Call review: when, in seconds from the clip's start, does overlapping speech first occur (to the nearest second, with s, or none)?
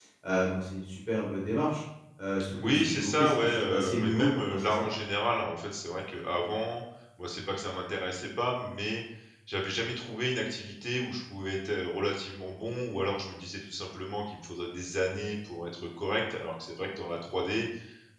3 s